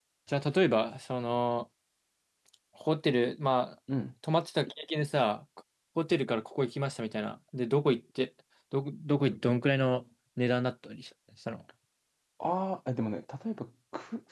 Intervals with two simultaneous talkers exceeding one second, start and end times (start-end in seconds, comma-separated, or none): none